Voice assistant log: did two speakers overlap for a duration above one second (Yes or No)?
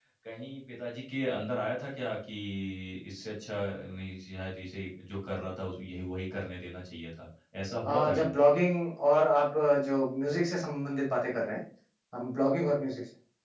No